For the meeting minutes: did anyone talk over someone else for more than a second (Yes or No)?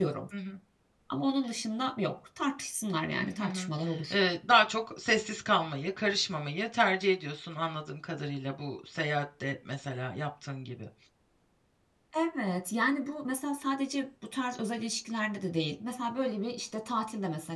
No